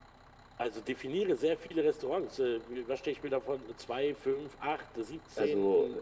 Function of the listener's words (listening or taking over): taking over